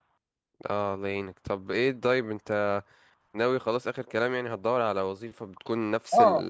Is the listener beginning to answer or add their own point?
Yes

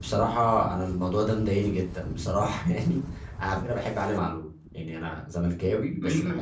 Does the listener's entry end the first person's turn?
Yes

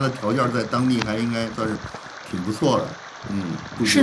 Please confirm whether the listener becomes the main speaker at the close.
Yes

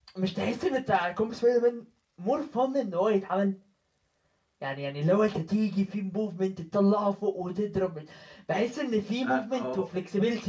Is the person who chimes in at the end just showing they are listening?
Yes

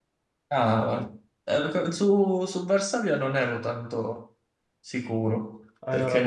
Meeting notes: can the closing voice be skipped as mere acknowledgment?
Yes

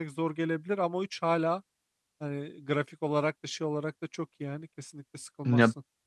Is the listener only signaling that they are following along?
No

